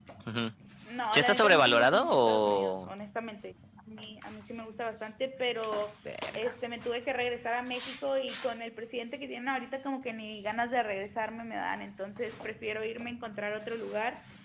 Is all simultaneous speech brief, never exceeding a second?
No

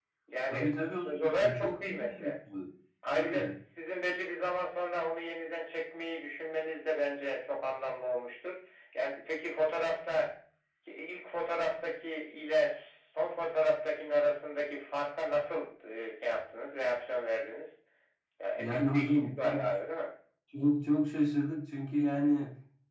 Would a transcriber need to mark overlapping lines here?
Yes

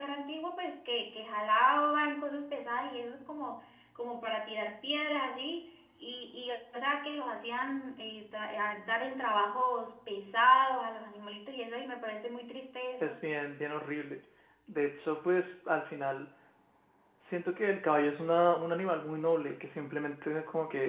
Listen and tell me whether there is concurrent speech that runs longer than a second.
No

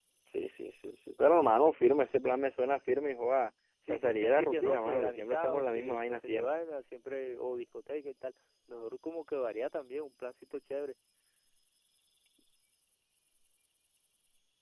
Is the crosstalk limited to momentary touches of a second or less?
No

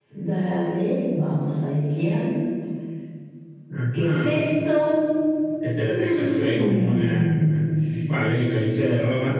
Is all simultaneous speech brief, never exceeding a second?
No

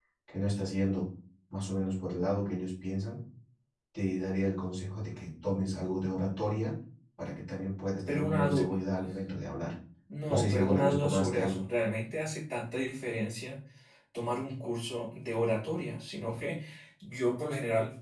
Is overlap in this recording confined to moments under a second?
No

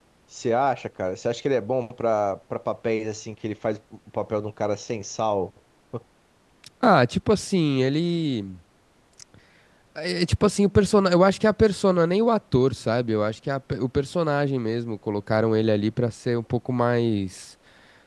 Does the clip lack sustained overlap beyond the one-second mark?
Yes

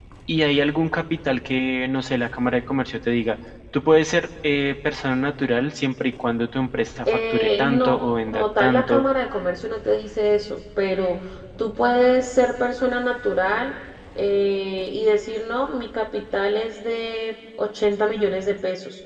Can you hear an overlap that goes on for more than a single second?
Yes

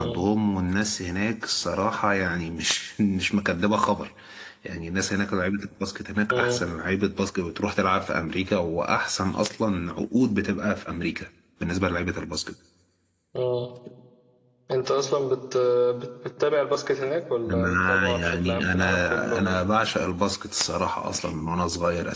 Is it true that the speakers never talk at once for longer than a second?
No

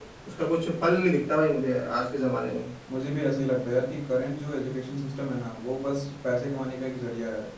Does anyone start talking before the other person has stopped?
No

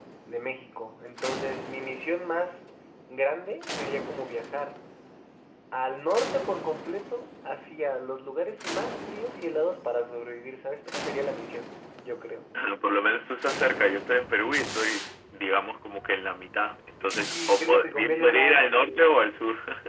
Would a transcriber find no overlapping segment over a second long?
No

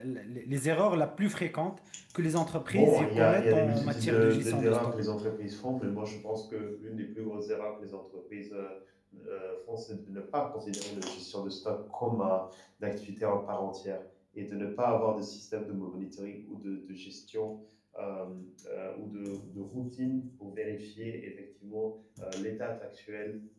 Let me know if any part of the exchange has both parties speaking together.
Yes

